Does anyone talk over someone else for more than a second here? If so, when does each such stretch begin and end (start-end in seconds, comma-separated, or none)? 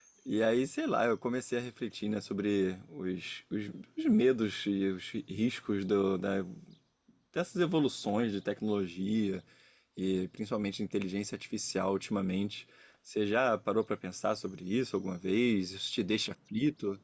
none